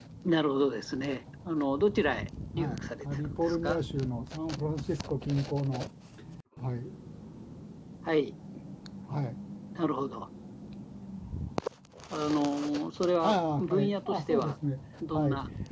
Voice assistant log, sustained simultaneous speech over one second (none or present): present